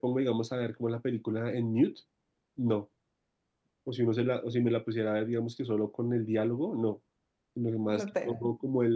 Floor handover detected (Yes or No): No